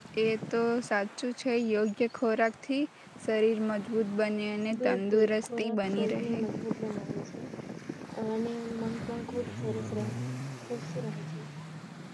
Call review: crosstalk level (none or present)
present